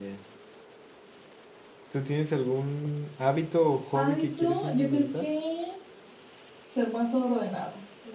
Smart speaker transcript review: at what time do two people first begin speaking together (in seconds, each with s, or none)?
3.9 s